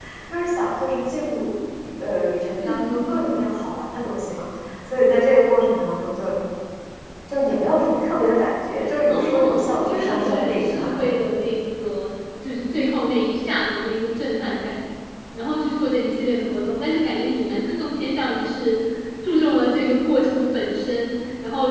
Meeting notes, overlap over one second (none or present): present